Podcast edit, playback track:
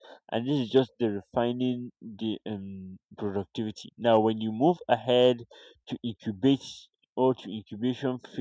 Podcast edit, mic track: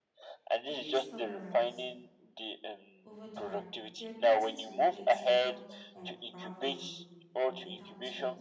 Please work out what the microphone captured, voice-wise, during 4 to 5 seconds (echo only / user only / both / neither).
both